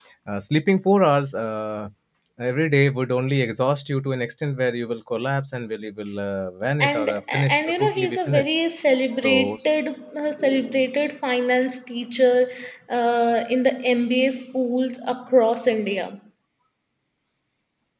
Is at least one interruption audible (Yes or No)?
Yes